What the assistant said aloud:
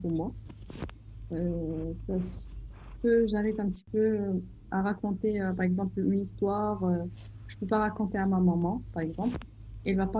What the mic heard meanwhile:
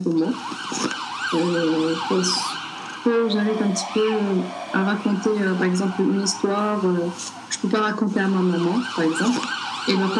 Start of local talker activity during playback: none

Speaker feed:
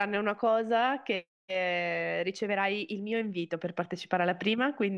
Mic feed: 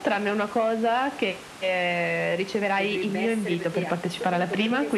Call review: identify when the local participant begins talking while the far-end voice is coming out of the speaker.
2.7 s

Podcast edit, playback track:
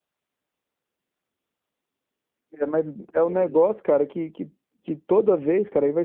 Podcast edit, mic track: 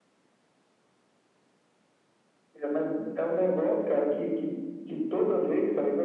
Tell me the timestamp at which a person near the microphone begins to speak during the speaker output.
none

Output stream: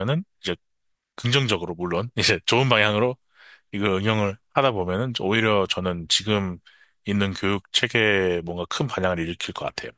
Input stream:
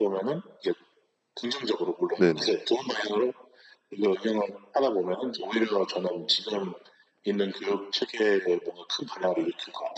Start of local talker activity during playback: 2.2 s

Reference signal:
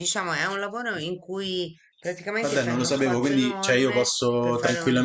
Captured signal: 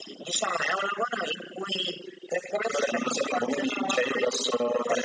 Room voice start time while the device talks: none

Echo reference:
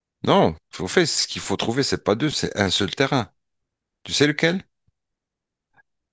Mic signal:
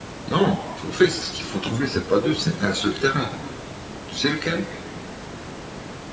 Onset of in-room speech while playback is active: none

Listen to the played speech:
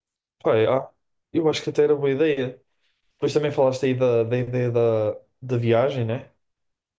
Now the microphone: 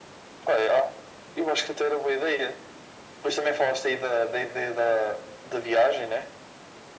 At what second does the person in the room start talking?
none

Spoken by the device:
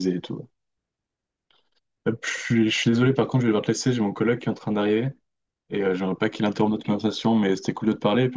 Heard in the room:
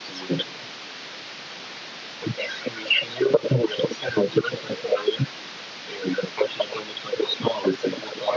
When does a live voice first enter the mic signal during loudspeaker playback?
none

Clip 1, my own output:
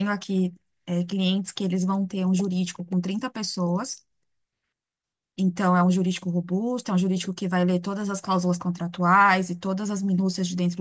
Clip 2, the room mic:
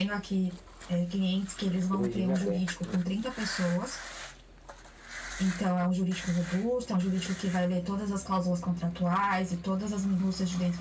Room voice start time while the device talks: 2.0 s

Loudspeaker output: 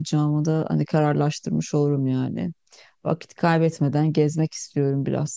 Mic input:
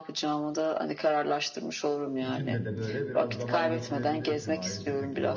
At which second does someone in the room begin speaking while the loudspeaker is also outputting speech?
2.2 s

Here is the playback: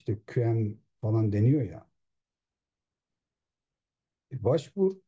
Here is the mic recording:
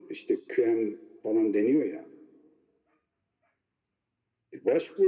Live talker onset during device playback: none

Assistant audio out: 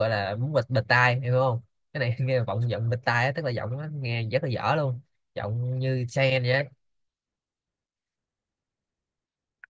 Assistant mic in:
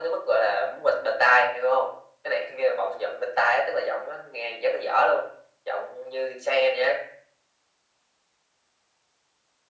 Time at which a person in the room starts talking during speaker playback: none

